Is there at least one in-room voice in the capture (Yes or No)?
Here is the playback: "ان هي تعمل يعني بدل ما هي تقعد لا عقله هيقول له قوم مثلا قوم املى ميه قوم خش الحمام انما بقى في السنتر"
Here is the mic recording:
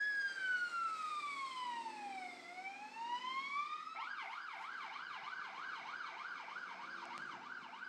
No